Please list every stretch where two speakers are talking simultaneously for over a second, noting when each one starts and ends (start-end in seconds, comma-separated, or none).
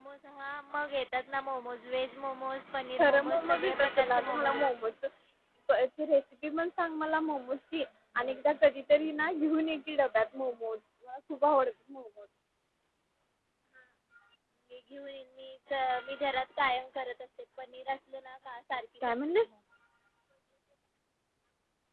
3.0-4.7